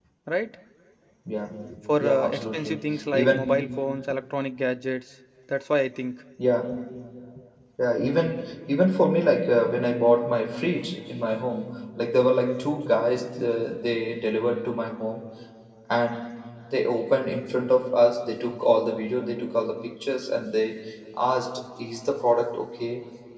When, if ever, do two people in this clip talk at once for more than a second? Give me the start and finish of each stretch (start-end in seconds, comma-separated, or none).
2.0-3.7